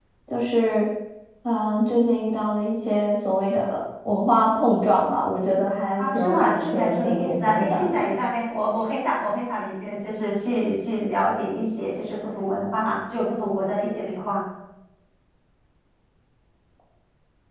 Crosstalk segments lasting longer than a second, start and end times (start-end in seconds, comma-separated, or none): 6.0-8.1